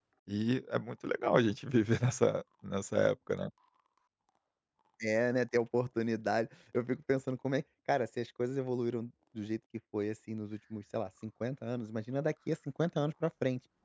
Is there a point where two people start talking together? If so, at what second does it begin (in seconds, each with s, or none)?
none